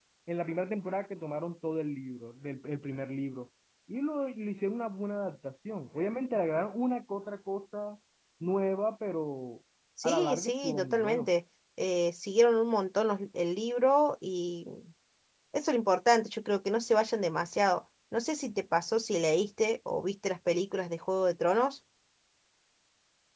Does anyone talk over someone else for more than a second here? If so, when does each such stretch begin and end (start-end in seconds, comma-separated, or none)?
10.0-11.3